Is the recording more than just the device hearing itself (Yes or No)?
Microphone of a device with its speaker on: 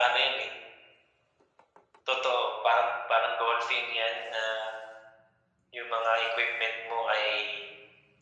No